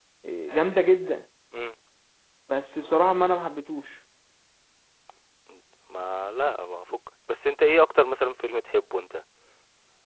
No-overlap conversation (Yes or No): Yes